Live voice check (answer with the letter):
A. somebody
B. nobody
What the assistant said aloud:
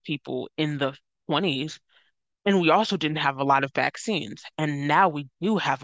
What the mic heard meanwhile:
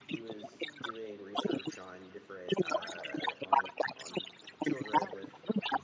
A